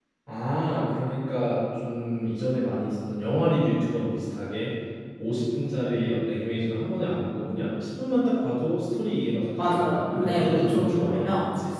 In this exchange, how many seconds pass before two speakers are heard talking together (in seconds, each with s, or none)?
9.6 s